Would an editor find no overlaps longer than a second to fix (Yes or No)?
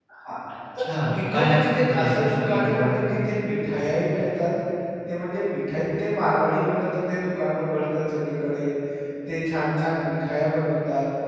No